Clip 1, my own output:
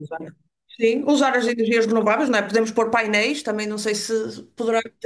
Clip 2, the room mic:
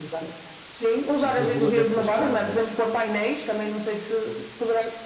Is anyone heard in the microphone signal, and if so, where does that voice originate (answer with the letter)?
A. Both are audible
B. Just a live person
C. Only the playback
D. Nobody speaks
A